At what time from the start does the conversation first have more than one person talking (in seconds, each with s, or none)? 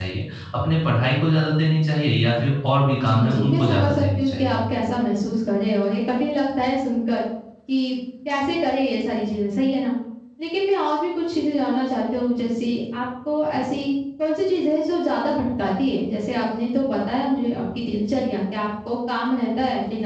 3.0 s